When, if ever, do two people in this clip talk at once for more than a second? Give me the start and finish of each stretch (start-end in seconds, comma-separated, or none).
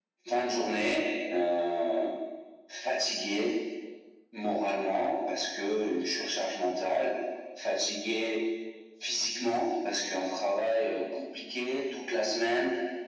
none